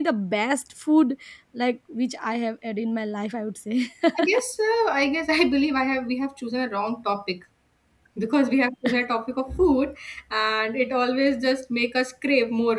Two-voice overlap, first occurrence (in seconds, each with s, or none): none